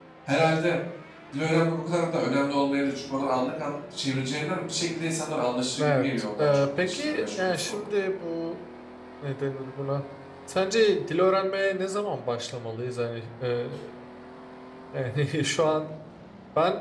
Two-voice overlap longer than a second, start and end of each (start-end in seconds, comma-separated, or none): 5.8-7.9